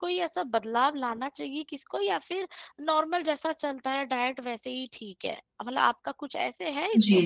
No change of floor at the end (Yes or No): No